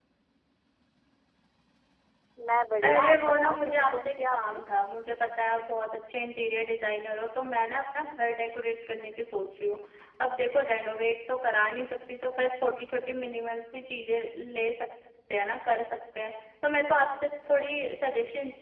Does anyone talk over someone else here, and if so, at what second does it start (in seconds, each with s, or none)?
2.8 s